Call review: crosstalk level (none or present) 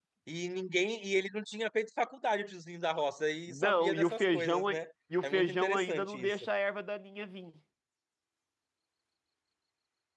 present